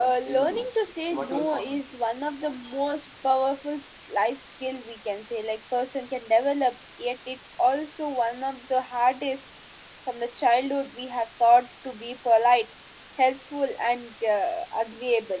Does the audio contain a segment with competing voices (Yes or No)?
Yes